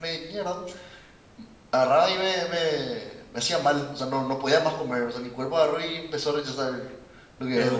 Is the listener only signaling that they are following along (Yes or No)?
No